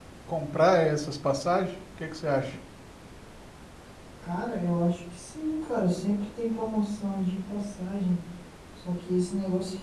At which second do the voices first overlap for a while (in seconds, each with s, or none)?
none